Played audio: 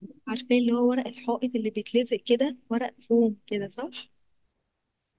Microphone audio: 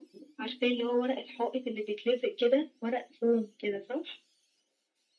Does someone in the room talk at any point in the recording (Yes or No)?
No